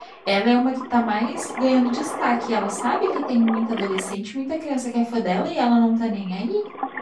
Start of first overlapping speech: none

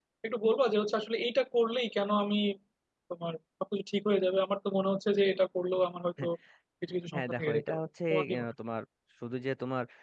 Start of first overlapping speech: 7.1 s

